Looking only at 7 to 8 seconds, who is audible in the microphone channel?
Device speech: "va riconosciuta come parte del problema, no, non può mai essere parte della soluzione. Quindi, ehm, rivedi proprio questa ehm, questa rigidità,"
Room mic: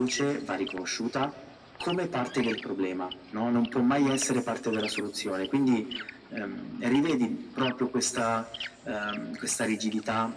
echo only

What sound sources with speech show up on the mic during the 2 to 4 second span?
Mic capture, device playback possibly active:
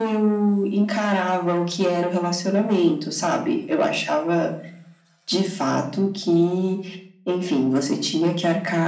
echo only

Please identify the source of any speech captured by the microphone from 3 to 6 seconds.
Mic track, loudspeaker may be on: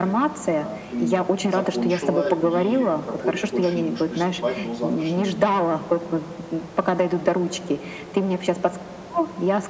both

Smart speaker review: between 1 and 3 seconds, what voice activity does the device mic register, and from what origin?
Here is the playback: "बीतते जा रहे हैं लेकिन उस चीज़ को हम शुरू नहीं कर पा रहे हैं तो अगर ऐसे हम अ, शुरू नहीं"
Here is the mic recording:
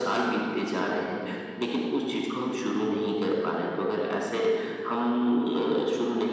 echo only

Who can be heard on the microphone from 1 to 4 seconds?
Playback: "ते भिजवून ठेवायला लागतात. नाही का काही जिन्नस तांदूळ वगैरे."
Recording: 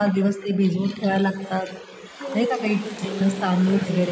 both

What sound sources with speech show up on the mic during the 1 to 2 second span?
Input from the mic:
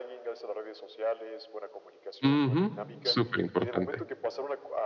echo only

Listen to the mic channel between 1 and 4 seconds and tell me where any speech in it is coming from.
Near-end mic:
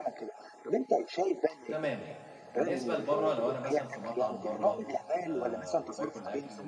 both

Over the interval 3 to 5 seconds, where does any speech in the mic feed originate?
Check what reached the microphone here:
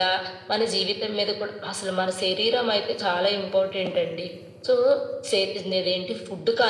echo only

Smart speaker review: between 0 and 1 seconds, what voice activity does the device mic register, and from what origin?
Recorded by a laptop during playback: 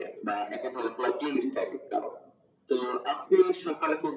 echo only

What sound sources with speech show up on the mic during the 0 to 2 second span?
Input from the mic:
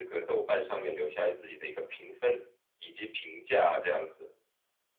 echo only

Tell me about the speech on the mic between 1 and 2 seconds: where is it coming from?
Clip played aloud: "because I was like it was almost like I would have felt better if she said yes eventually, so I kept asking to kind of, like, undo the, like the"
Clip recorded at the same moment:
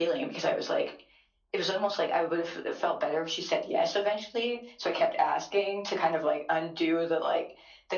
echo only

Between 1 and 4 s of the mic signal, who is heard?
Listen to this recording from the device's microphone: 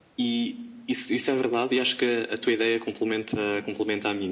echo only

